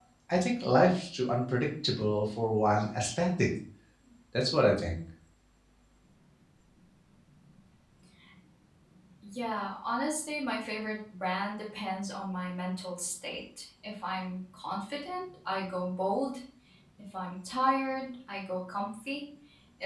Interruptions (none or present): none